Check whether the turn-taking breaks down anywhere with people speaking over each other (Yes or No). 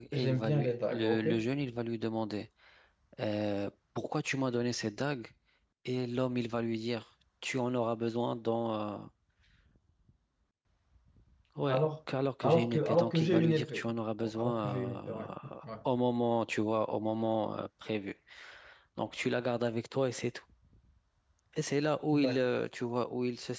Yes